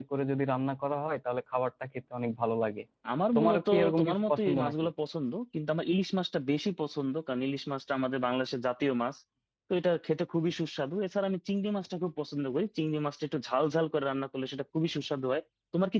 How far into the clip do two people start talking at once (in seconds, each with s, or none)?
3.4 s